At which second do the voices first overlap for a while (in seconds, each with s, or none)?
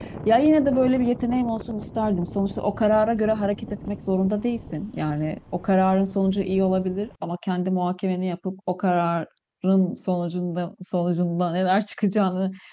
none